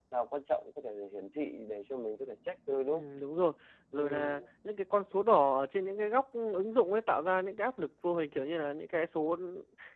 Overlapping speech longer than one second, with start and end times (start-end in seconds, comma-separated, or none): none